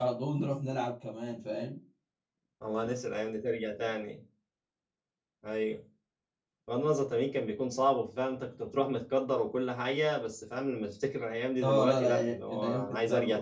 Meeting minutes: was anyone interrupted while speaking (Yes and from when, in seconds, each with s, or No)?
Yes, from 11.6 s